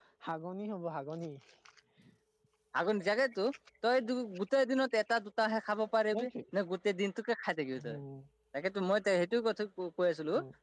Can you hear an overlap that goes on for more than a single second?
No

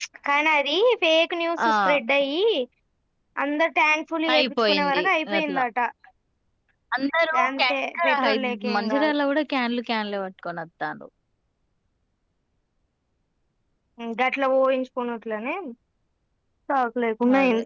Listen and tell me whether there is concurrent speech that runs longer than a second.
Yes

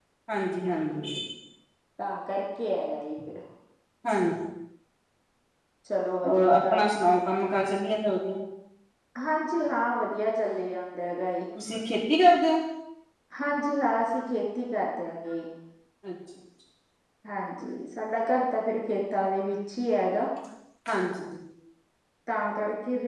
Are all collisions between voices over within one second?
Yes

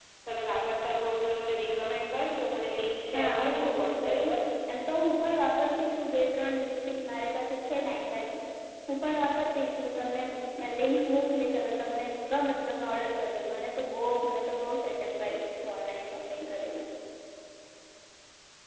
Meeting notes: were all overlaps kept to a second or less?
No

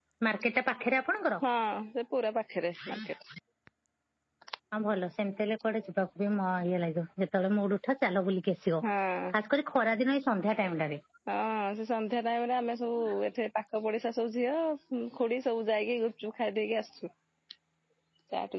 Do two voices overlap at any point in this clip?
No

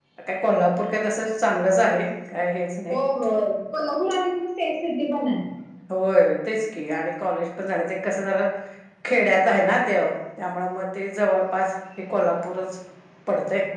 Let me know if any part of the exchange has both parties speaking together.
No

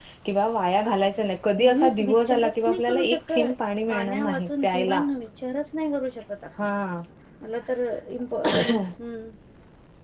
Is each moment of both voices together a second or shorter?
No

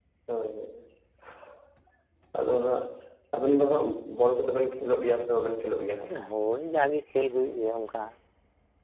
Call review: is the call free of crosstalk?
Yes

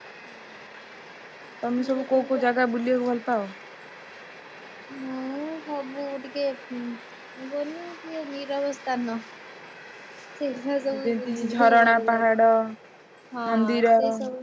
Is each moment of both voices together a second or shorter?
No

